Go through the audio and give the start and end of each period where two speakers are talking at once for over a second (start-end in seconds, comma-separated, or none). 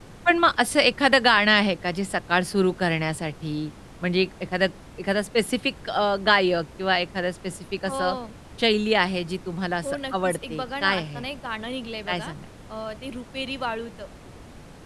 9.8-11.2